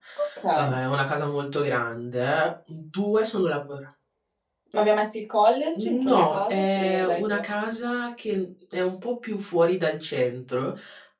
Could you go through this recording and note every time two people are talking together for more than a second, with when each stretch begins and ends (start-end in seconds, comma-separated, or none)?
5.8-7.4